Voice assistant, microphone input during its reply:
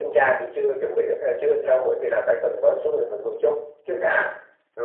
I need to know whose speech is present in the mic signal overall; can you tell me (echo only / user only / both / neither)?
echo only